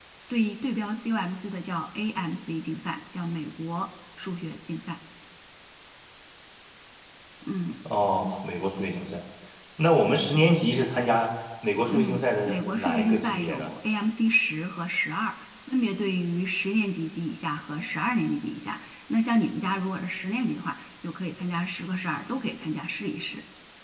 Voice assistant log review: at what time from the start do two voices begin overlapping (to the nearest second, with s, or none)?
12 s